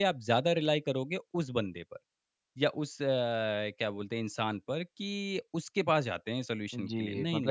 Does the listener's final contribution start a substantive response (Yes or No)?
Yes